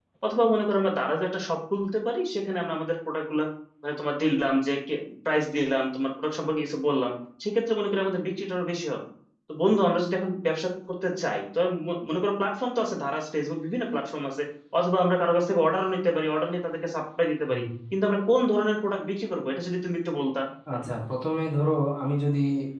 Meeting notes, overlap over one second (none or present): none